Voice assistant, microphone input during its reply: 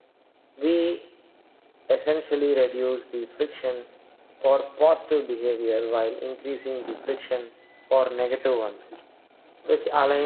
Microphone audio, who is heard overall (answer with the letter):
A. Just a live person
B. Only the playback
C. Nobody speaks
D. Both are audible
B